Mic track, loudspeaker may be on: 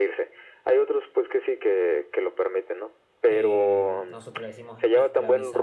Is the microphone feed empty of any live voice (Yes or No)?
No